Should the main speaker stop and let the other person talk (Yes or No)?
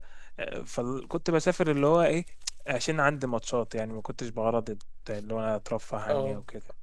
Yes